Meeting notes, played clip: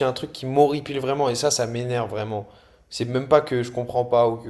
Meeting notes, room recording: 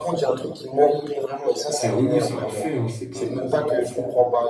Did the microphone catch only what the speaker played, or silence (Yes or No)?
No